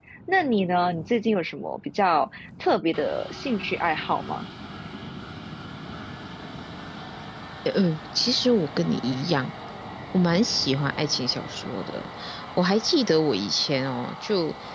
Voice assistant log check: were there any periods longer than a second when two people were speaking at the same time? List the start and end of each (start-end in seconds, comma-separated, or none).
none